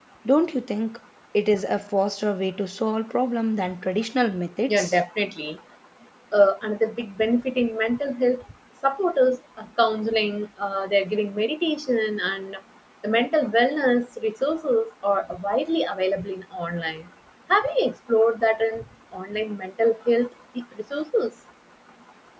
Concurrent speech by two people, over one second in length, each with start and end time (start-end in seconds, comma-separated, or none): none